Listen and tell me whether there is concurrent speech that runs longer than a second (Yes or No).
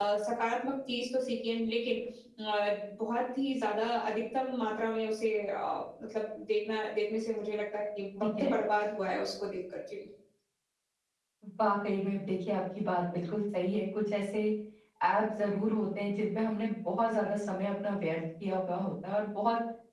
No